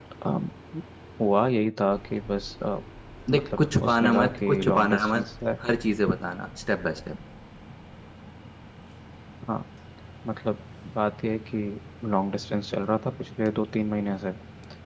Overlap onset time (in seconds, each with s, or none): 3.3 s